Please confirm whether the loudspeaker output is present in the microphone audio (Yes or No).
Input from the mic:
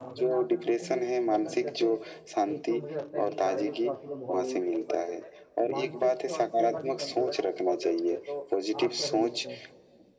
Yes